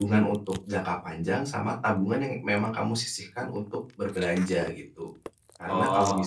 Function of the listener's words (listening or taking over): listening